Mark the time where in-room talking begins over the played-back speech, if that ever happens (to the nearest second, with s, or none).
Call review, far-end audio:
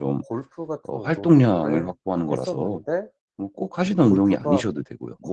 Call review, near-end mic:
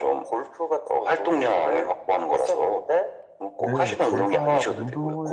4 s